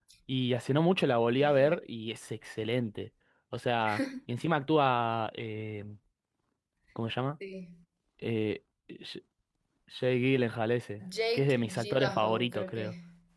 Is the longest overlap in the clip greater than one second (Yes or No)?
Yes